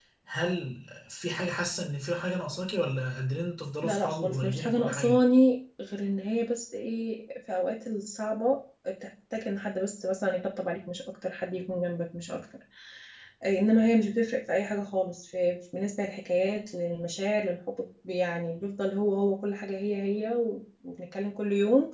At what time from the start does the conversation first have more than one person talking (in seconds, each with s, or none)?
3.8 s